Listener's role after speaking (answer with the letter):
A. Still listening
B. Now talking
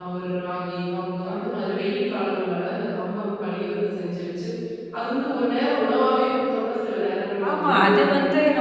B